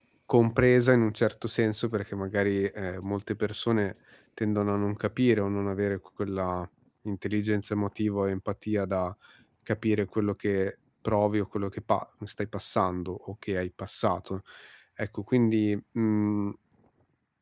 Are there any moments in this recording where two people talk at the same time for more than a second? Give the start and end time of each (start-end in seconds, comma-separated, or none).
none